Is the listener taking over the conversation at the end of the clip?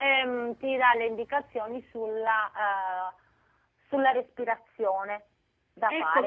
Yes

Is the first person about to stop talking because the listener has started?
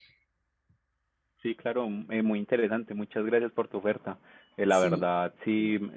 No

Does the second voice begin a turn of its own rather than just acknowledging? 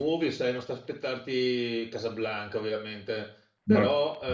No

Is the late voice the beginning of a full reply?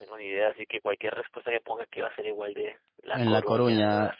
Yes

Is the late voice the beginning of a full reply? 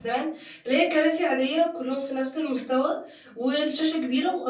No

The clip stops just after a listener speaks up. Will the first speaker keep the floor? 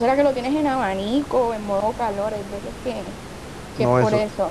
No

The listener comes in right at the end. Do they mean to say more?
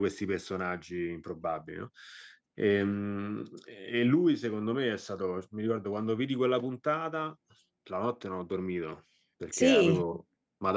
No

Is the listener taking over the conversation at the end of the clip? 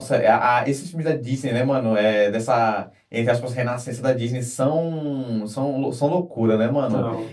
No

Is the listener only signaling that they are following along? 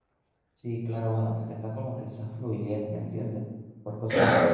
Yes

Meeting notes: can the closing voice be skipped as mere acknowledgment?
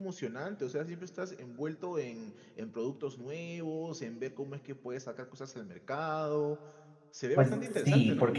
No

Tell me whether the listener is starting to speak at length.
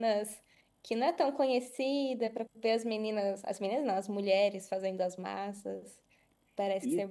Yes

